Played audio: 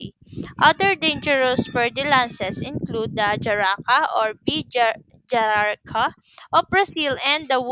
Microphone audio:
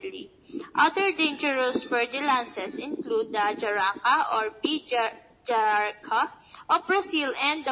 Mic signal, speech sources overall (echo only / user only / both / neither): echo only